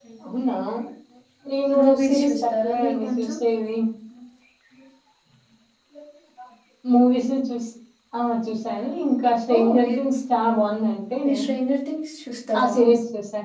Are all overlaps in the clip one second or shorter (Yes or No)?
No